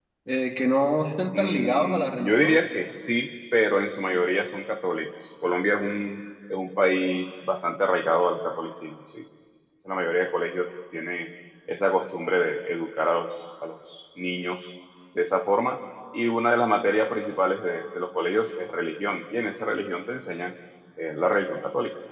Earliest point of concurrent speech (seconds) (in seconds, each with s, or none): 1.3 s